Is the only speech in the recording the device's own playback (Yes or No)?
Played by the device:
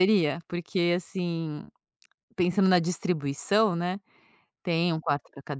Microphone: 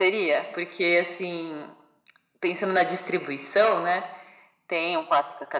Yes